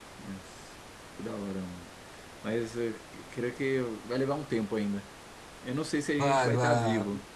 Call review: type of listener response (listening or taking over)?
taking over